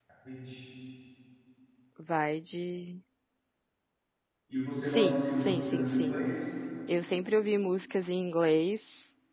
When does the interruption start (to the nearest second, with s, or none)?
5 s